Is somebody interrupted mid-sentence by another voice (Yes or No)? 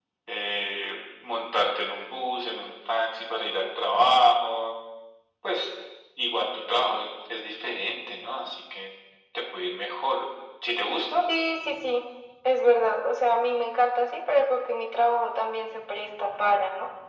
No